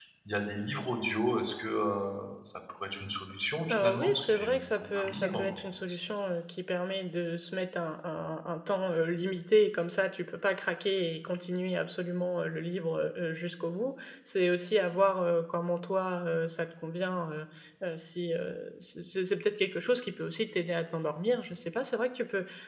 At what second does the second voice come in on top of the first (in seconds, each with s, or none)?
3.7 s